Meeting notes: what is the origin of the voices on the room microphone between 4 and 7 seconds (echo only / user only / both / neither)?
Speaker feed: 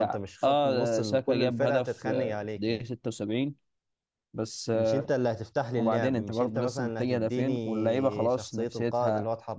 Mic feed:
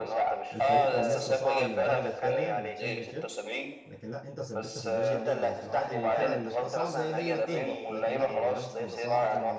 both